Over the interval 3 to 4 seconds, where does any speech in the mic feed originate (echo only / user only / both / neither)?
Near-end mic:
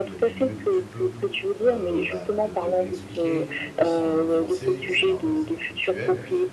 both